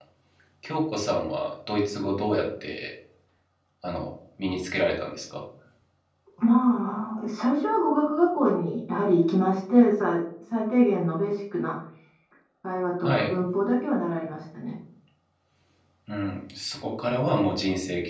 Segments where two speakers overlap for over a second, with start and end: none

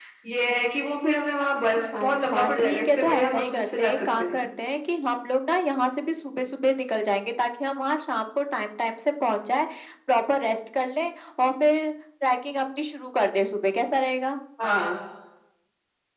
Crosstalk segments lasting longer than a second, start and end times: 2.0-4.5

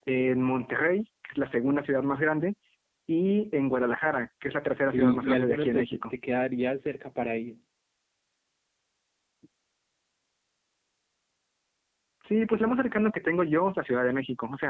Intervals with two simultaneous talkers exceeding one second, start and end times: 4.8-6.0

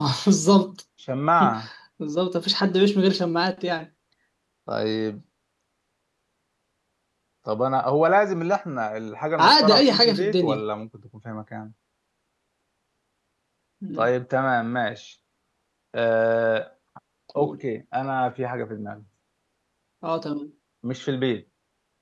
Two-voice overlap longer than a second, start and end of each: 9.4-10.6

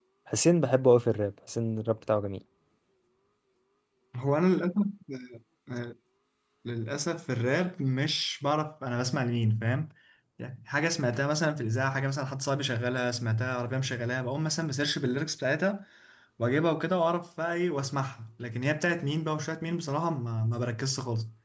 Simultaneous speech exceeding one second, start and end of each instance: none

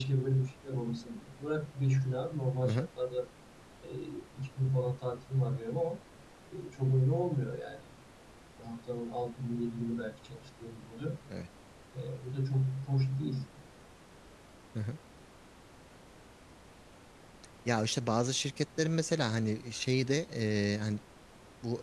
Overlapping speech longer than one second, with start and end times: none

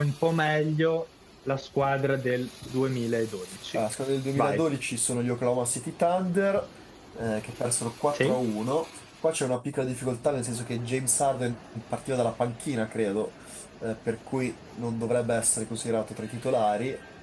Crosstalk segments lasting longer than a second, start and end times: none

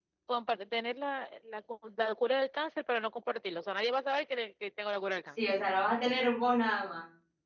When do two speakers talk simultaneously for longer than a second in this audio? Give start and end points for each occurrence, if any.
none

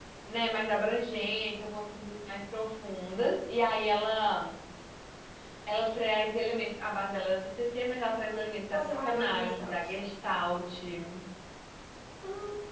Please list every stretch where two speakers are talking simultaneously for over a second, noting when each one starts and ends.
8.7-9.9

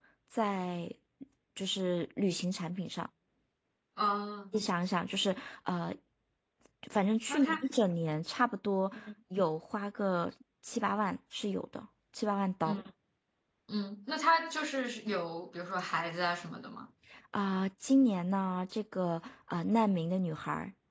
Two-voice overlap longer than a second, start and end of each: none

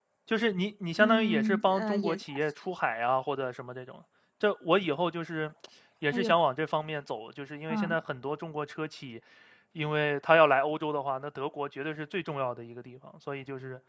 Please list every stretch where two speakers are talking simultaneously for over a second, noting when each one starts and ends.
1.0-2.4

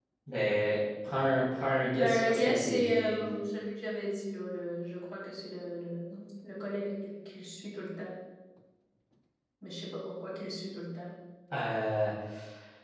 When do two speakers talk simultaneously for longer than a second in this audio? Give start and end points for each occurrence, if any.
1.9-3.2

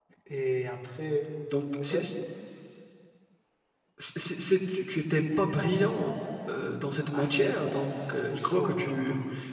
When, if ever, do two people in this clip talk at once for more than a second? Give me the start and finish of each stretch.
7.1-8.9

